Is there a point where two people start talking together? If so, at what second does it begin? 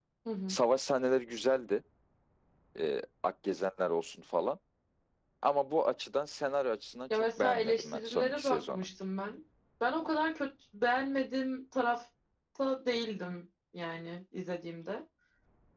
7.1 s

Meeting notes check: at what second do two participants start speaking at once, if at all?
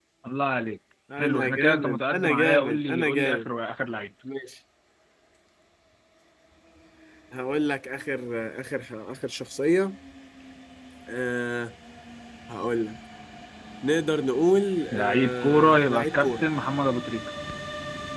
1.2 s

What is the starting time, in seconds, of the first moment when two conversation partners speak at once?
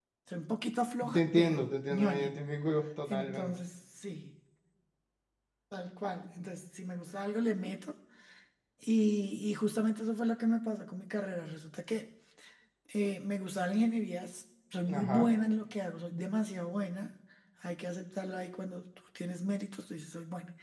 1.1 s

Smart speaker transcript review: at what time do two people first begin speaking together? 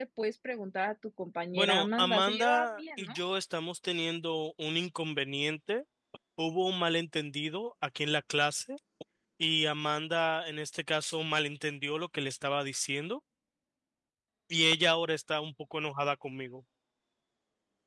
1.5 s

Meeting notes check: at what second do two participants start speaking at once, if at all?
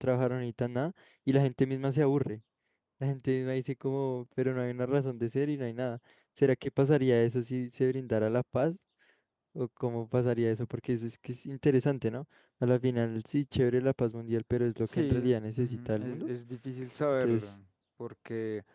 14.8 s

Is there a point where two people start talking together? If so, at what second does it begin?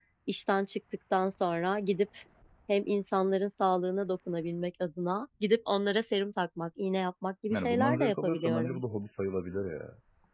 7.5 s

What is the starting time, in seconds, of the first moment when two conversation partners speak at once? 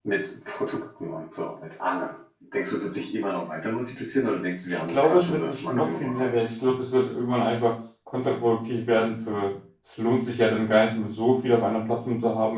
4.7 s

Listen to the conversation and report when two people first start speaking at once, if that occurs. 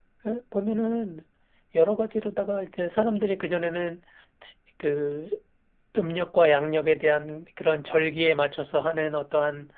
none

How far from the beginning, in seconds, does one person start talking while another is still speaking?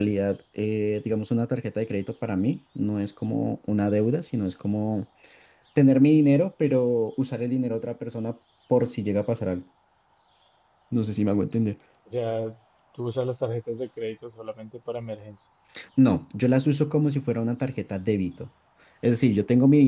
none

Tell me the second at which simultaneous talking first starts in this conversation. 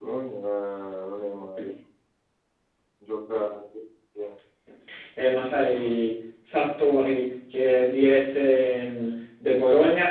none

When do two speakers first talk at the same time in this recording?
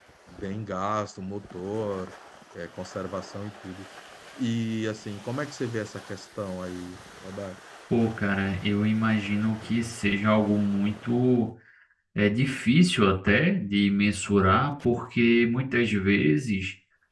none

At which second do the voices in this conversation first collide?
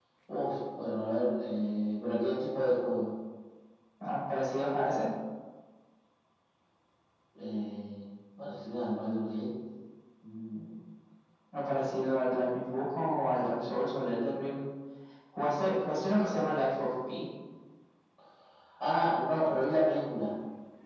none

